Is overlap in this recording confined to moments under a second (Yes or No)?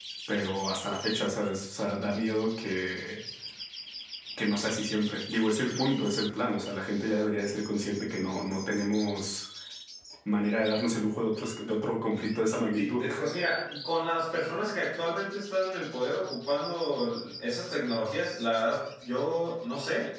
Yes